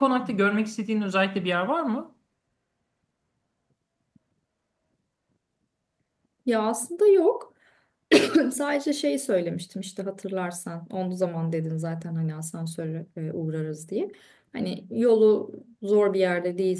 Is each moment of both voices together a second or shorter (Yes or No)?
Yes